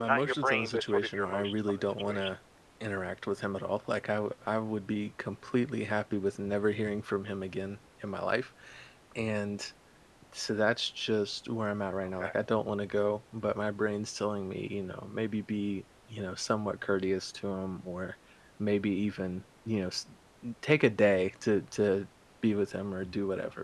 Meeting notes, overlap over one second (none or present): present